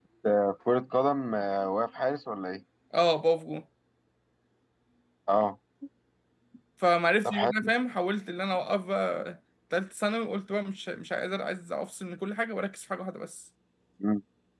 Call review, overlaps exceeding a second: none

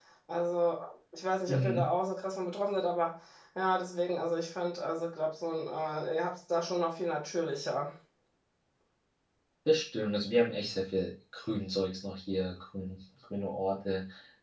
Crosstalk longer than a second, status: none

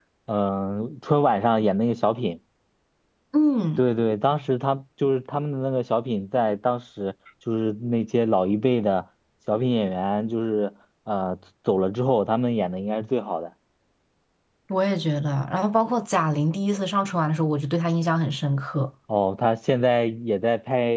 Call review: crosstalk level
none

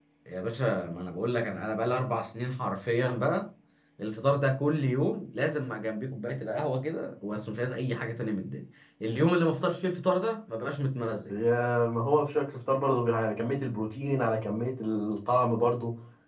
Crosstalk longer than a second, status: none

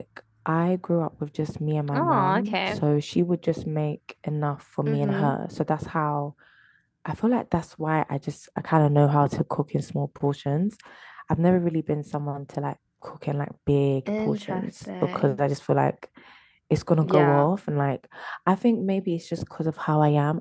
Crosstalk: present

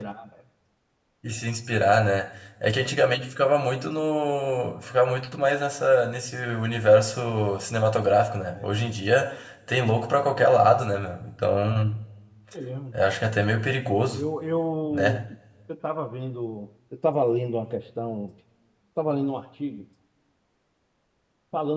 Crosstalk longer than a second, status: none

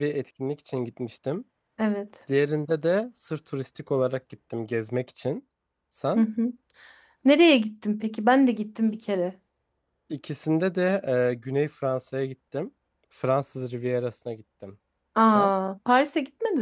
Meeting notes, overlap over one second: none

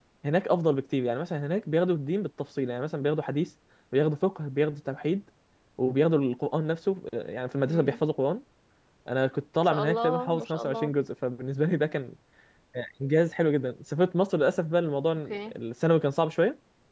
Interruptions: present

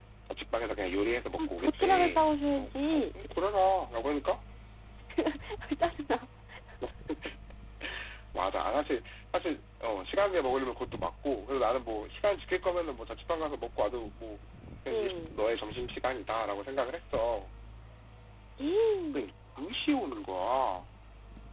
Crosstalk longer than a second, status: present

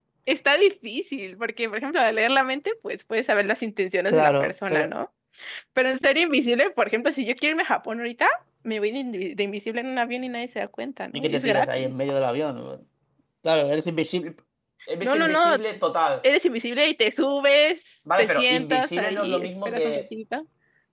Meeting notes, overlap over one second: present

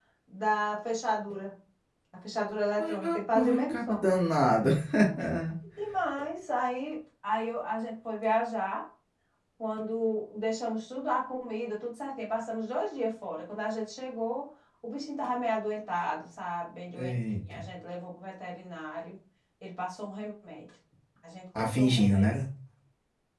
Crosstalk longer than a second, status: present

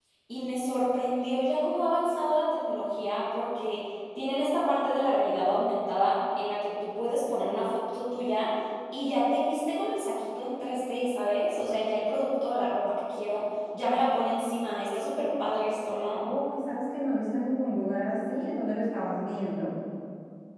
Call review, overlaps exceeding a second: none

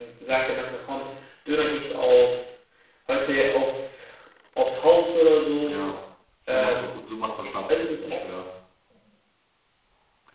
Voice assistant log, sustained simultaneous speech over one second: none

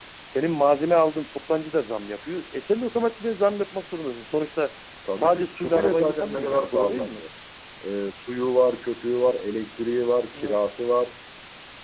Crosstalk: present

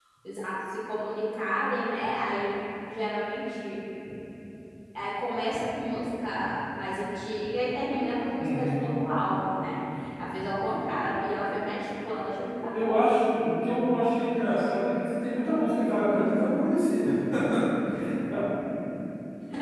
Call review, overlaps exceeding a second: none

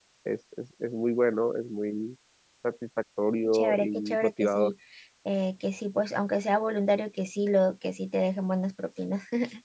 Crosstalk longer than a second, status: present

